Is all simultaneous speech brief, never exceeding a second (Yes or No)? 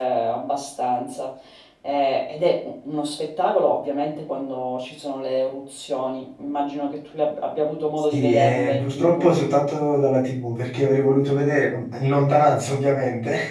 No